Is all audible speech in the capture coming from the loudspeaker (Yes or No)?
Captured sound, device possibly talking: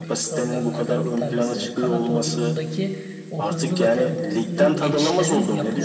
No